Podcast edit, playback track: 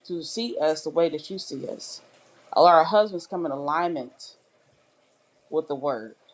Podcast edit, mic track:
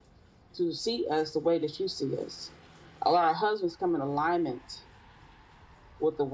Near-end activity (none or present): none